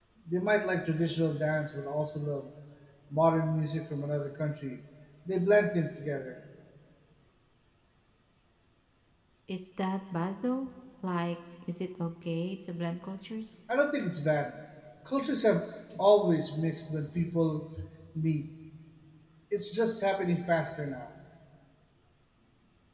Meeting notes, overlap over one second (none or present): none